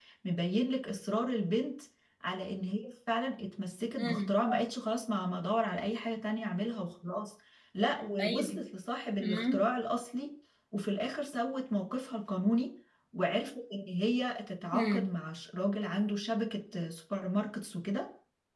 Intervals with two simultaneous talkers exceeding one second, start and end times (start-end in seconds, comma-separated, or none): none